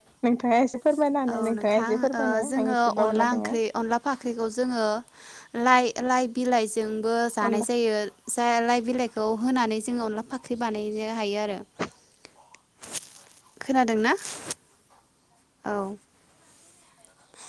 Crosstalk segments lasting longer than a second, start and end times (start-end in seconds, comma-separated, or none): 1.3-3.5